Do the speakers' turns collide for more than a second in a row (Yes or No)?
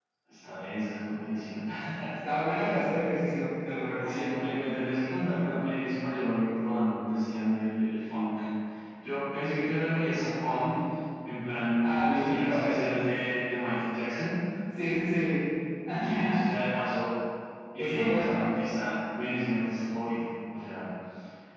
Yes